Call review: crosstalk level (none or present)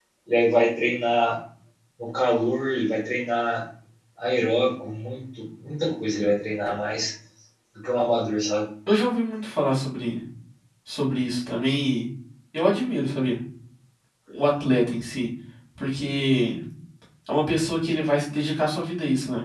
none